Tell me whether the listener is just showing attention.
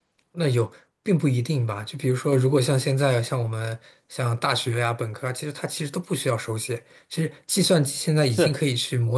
Yes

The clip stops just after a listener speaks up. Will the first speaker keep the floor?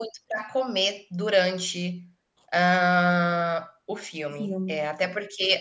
Yes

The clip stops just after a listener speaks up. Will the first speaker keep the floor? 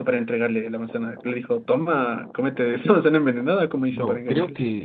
No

